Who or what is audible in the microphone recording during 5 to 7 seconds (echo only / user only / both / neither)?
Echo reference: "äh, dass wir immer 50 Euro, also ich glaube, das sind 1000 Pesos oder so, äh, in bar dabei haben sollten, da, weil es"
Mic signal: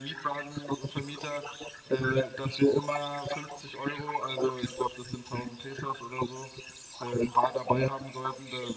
echo only